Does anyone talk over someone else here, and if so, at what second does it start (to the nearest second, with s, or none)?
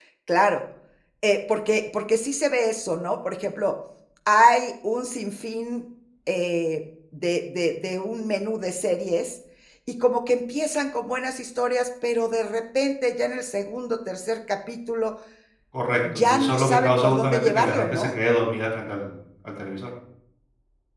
16 s